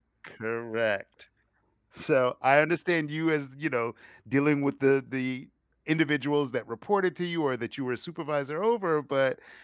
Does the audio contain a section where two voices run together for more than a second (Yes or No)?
No